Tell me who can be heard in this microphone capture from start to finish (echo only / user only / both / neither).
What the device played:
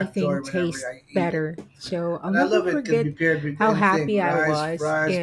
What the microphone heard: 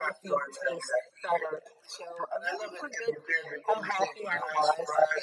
echo only